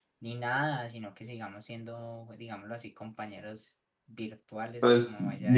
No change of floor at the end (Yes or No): No